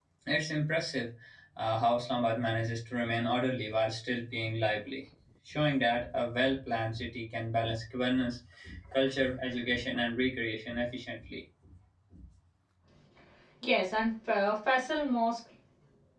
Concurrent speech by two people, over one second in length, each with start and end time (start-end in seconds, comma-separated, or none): none